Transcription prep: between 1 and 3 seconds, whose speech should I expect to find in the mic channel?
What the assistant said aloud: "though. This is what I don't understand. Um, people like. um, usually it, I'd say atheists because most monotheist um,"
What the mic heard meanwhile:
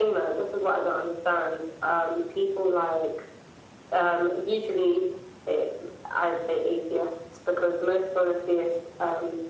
echo only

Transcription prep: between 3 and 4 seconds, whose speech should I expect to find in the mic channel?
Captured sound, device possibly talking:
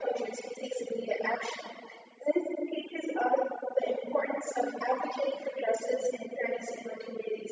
echo only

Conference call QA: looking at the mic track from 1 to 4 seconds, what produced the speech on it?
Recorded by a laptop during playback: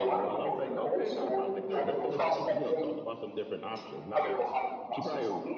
both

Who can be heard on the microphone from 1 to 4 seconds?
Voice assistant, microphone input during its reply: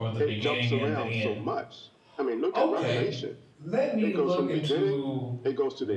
both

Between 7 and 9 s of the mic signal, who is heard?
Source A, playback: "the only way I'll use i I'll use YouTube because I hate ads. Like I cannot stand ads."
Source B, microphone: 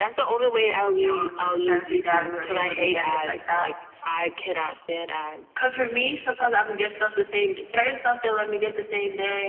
user only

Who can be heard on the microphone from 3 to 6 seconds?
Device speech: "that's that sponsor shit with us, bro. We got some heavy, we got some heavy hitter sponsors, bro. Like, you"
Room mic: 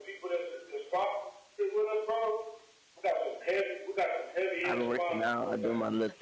both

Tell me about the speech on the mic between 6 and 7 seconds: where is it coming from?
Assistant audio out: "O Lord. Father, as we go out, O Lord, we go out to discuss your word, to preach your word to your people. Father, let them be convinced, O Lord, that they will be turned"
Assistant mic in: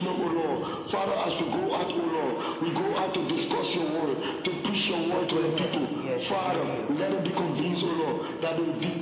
both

